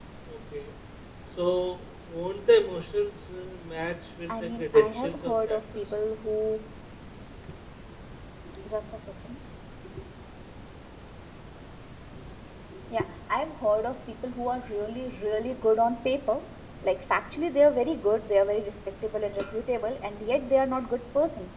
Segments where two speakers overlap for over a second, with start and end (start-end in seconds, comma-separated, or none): 4.4-5.8